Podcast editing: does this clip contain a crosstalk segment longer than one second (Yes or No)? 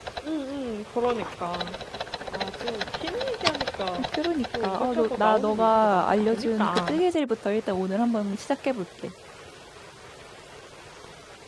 Yes